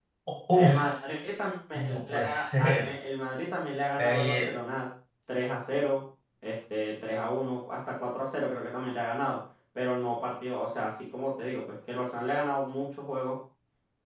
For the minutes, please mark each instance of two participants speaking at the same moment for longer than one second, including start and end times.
1.7-2.9

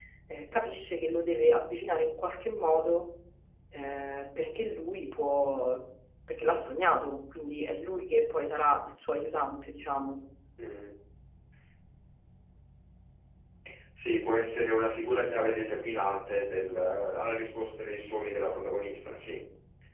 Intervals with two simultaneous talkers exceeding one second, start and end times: none

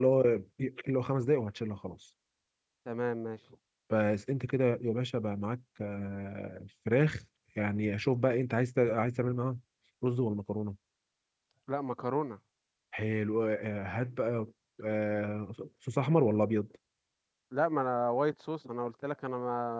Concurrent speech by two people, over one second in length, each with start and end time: none

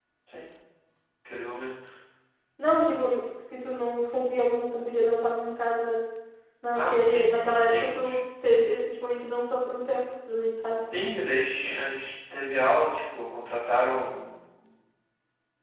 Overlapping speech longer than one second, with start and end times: 6.7-8.2

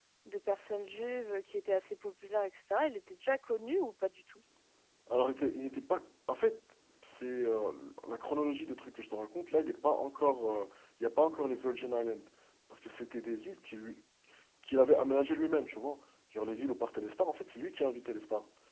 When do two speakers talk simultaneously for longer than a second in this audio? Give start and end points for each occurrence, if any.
none

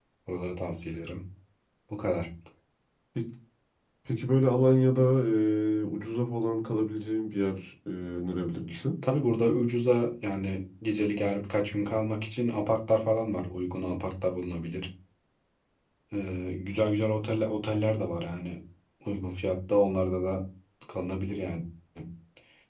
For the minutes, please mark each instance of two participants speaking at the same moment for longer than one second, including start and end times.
none

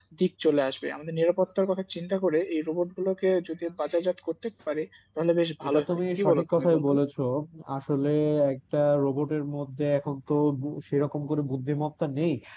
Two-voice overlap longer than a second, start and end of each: 5.7-6.9

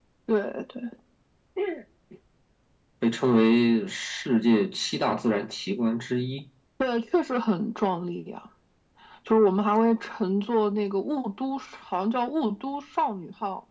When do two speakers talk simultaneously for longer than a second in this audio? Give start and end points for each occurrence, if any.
none

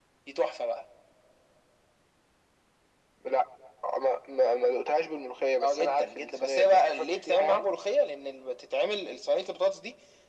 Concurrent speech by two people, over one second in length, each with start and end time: 5.6-7.7

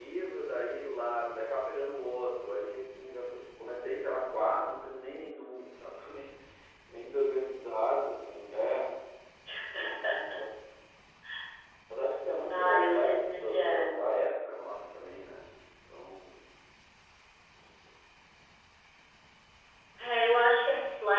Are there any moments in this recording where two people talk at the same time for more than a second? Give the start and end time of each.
12.5-14.0

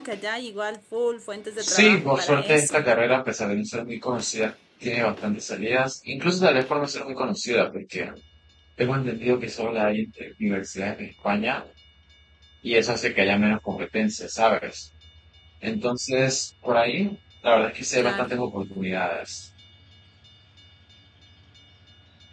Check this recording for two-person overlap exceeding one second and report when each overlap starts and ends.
1.6-2.9

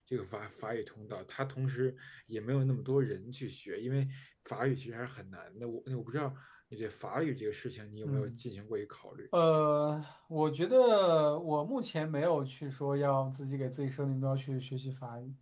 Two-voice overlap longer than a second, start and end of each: none

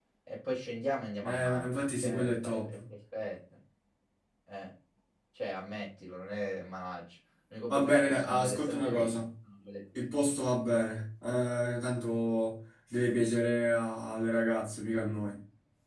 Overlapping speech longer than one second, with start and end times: 1.2-2.7, 7.7-9.2

